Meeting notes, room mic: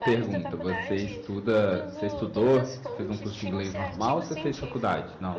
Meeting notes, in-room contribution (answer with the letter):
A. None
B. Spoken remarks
B